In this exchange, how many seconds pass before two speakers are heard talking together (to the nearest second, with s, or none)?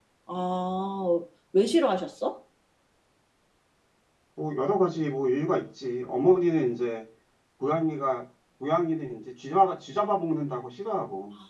none